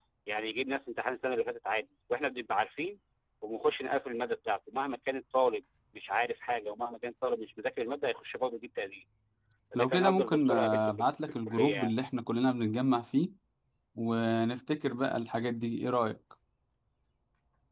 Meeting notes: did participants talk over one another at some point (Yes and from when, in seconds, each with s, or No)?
Yes, from 9.8 s